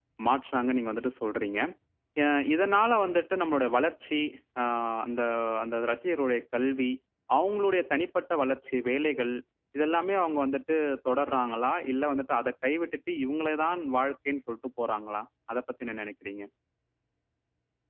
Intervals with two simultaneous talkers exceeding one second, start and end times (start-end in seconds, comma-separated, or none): none